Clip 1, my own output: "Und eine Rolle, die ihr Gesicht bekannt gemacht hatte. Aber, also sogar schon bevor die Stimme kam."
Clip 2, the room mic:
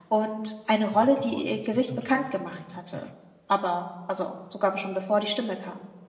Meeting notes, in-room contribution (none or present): present